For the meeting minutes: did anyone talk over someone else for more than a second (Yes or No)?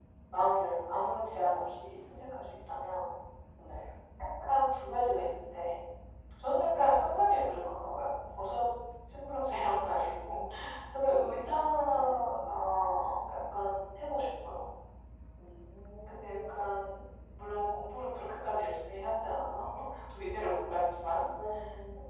No